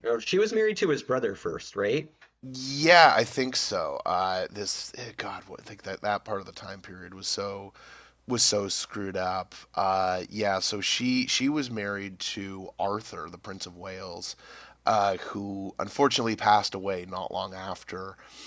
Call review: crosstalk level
none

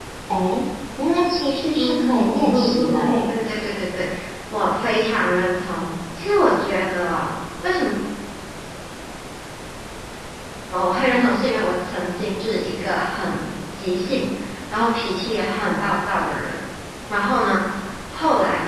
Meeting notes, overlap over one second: present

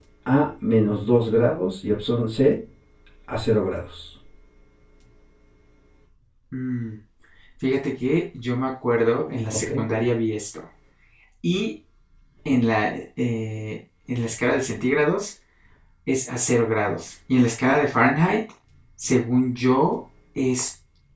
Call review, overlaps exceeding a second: none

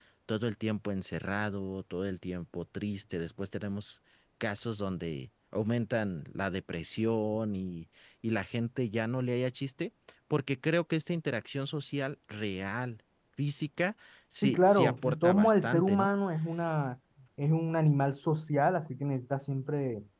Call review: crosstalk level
present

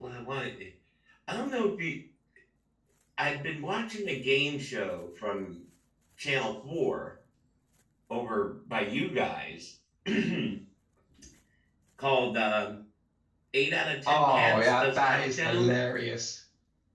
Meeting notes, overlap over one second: present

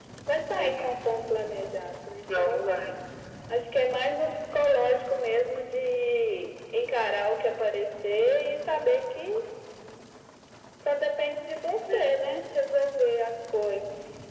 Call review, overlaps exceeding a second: none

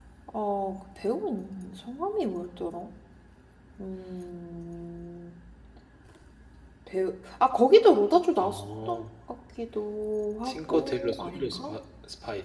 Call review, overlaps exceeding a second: present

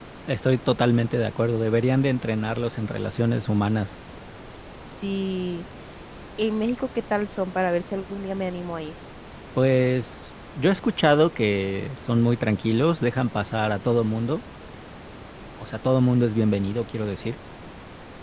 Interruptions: none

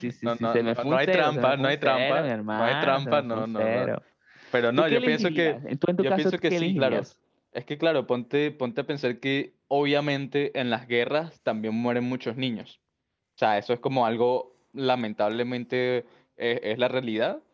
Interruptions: present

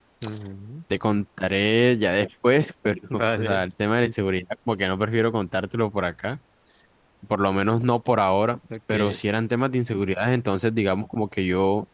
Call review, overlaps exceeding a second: none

